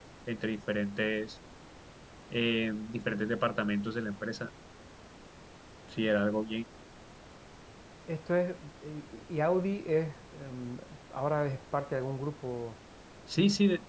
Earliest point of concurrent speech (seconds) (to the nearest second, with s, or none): none